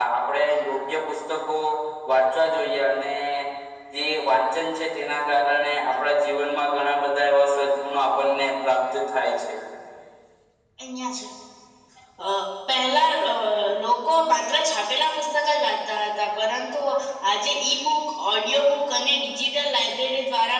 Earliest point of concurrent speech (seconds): none

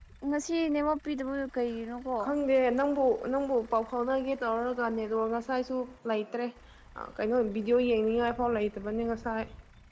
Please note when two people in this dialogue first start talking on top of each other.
none

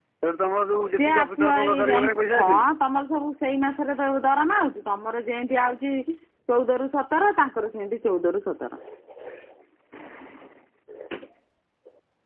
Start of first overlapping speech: 0.9 s

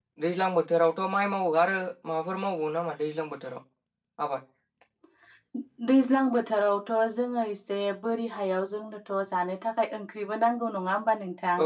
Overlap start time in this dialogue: none

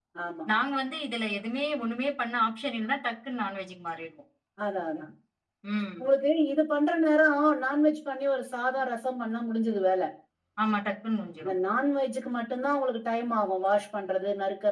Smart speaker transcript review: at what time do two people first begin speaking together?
none

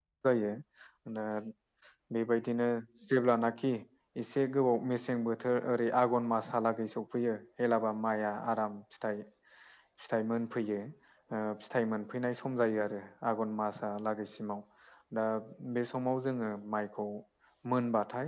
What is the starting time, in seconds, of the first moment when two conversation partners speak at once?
none

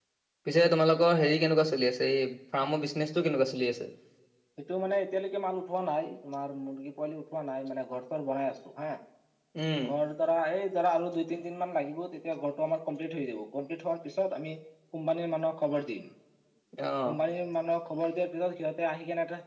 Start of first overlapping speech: none

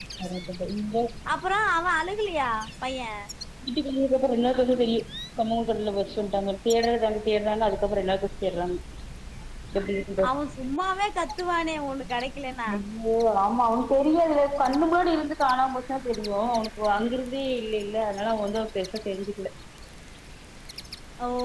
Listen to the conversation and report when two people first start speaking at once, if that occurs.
none

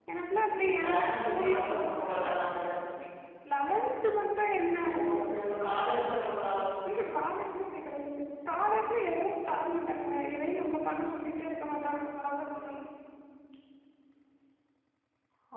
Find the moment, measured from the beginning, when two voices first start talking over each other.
0.7 s

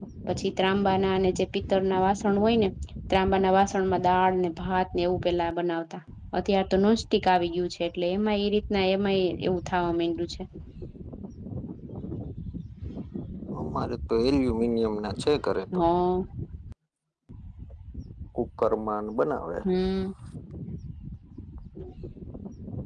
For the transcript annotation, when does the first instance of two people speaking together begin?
none

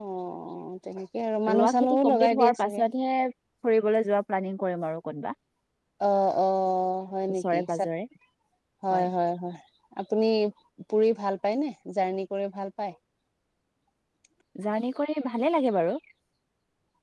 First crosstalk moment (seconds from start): 1.5 s

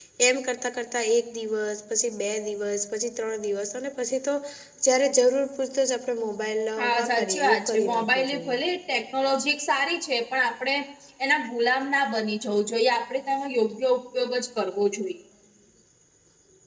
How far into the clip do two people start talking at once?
6.8 s

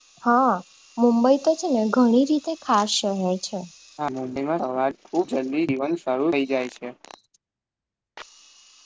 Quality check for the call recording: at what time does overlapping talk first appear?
none

